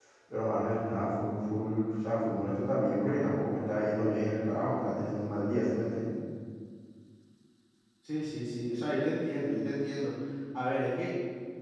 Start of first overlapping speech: none

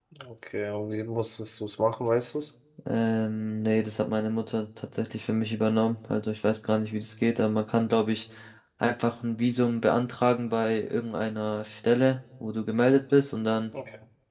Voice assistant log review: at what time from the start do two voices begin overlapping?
none

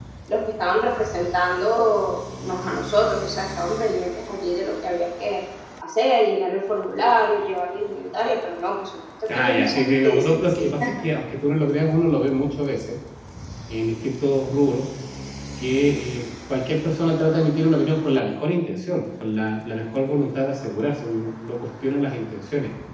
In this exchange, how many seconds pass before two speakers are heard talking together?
9.3 s

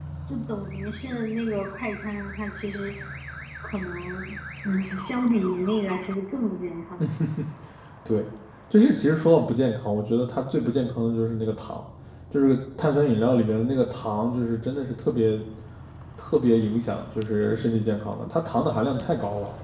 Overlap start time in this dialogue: none

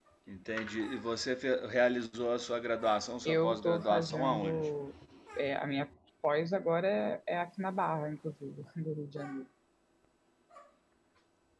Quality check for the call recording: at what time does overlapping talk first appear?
3.2 s

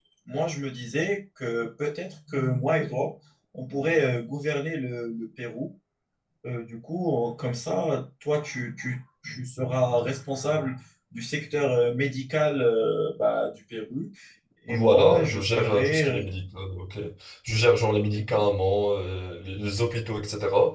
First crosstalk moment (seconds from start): 14.7 s

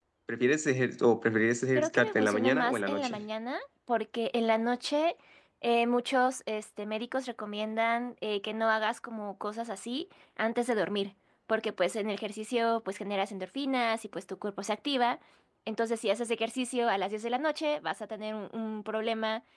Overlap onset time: 1.7 s

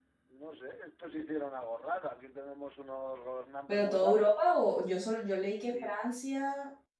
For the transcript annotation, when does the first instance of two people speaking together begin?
3.7 s

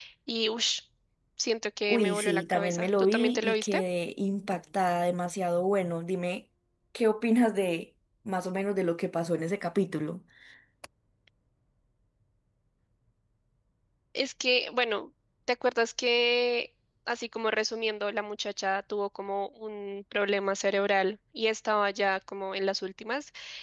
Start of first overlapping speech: 1.9 s

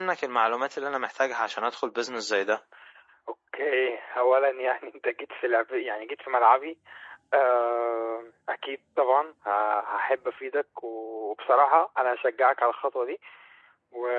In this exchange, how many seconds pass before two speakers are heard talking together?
none

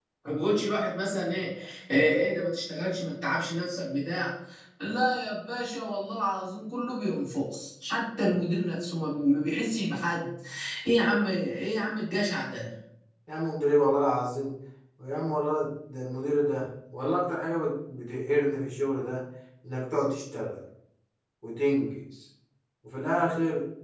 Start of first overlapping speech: none

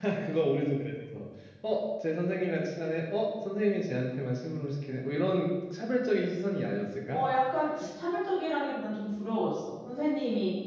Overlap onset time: none

